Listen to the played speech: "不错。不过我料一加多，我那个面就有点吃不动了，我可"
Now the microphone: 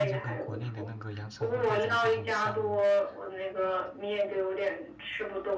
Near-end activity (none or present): present